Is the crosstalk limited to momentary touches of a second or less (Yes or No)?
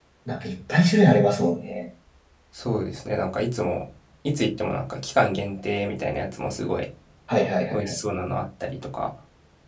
Yes